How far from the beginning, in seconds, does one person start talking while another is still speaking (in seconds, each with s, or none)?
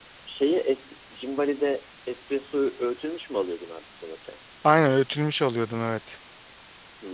none